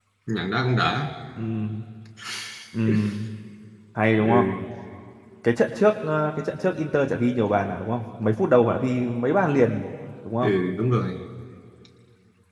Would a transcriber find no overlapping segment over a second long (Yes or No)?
Yes